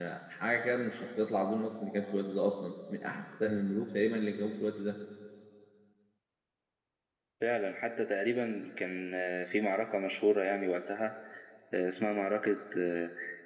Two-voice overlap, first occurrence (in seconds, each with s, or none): none